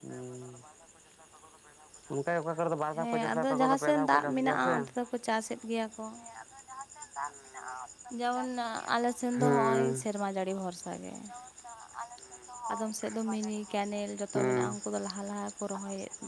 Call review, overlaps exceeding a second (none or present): present